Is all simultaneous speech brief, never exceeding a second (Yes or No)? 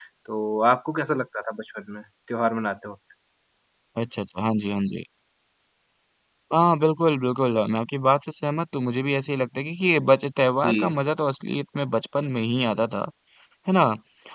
Yes